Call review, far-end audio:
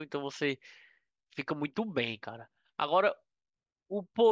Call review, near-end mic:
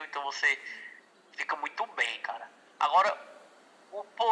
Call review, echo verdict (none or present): present